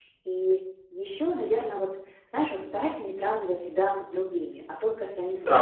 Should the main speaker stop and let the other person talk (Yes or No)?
Yes